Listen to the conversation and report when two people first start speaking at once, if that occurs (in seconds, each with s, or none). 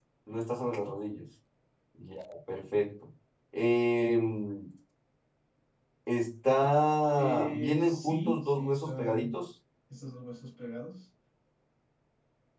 7.2 s